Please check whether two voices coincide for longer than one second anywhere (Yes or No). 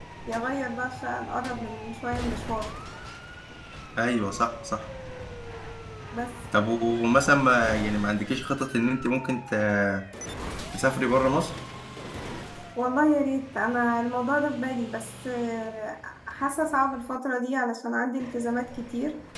No